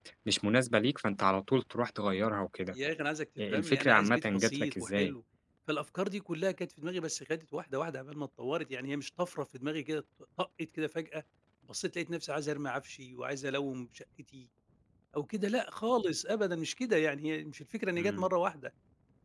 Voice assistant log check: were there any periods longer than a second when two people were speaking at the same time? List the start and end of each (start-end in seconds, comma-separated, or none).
3.5-5.1